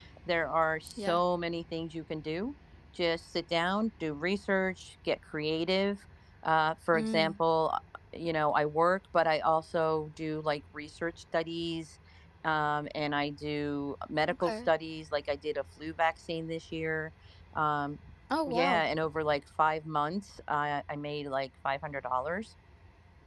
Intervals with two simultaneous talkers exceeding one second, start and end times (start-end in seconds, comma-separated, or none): none